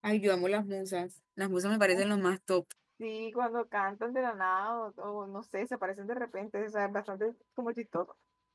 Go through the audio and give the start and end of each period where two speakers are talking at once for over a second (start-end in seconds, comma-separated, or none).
none